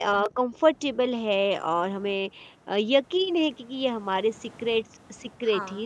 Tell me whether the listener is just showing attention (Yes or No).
Yes